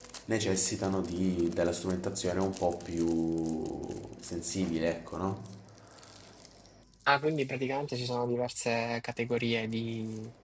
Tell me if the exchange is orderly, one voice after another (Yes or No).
Yes